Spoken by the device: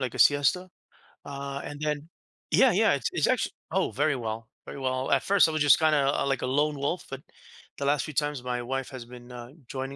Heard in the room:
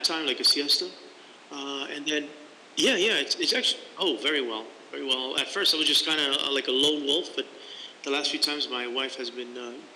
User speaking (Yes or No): No